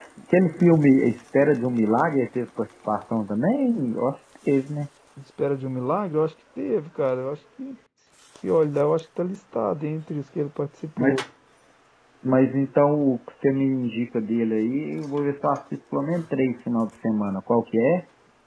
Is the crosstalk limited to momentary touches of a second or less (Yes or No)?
Yes